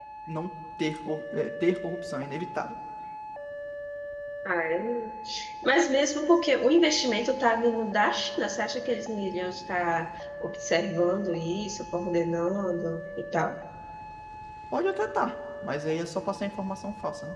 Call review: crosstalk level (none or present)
none